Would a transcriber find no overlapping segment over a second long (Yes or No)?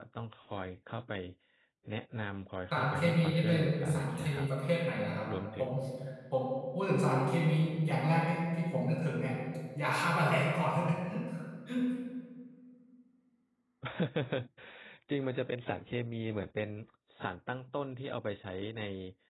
No